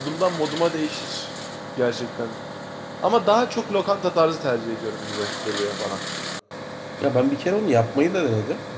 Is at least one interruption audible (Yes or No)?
No